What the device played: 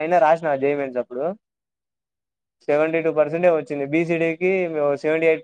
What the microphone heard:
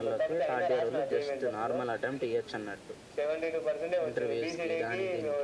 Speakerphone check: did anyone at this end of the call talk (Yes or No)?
Yes